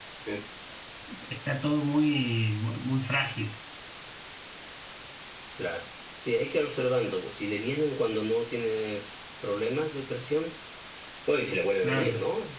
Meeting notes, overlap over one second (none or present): none